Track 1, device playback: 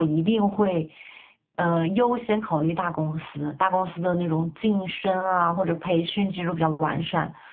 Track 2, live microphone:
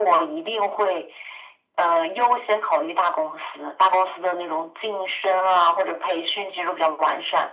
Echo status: present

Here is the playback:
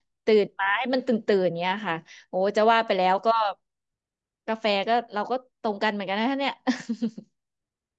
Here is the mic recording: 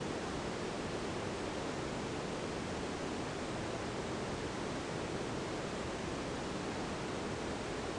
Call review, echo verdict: none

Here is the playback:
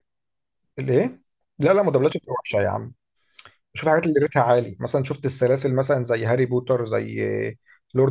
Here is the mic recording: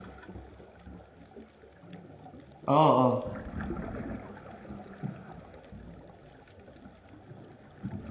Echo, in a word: none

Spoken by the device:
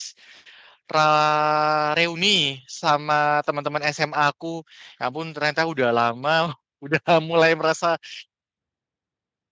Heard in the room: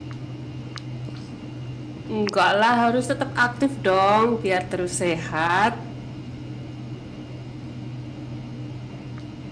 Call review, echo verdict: none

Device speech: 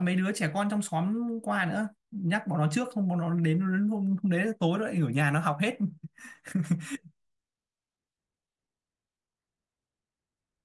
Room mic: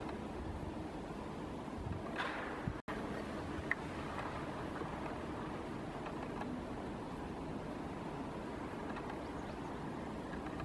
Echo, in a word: none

